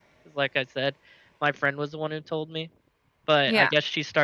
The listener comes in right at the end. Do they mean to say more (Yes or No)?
No